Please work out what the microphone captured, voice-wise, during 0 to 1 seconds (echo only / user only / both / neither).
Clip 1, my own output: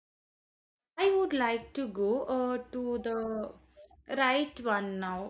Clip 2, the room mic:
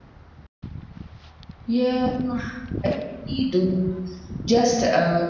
neither